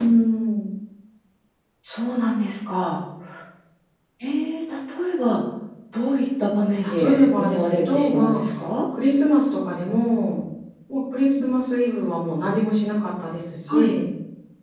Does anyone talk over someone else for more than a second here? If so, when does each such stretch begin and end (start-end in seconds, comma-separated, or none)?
7.0-8.4